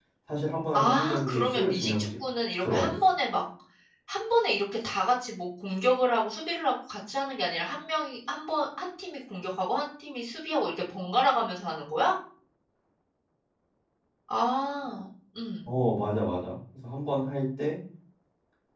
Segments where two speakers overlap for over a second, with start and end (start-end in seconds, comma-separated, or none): 0.7-2.0